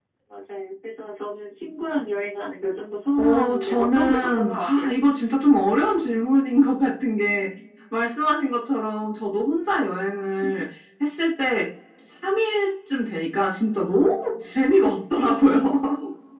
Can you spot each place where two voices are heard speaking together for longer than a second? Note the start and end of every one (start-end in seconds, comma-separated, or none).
3.2-4.9